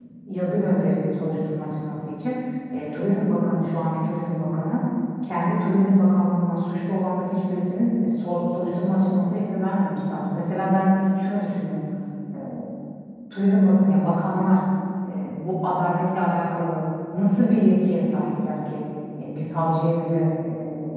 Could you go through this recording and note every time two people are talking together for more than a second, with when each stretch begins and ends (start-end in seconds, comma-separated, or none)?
none